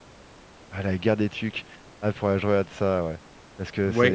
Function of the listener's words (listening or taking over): taking over